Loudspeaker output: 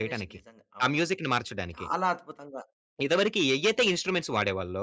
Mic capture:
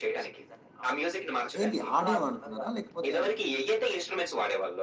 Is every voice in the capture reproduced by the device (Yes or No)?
No